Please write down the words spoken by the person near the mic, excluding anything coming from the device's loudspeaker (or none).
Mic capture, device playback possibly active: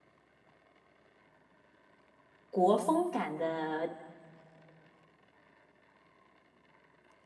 国风感的